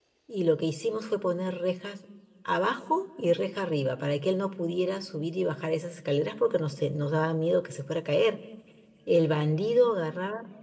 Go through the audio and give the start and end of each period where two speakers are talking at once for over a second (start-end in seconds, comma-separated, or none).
none